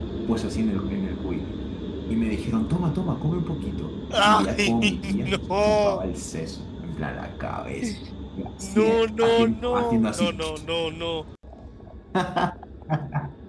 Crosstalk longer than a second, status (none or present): present